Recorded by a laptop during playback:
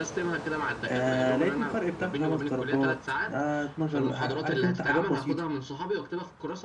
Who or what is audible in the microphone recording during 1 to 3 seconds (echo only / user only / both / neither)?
both